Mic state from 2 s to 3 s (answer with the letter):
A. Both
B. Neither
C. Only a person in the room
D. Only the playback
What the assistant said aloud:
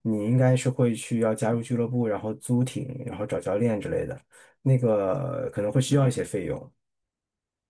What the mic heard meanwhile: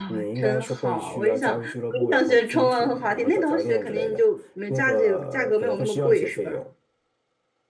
A